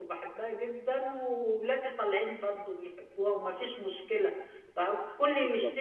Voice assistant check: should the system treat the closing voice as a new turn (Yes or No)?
No